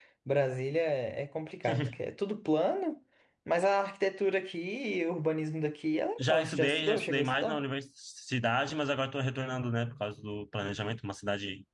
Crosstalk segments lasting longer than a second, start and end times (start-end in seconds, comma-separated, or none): 6.2-7.6